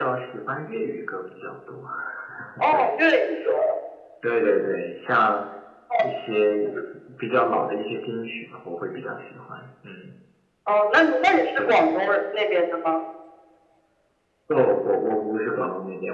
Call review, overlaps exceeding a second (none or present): none